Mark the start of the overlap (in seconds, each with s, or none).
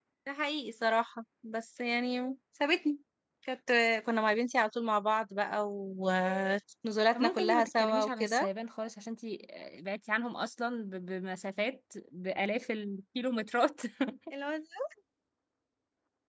7.1 s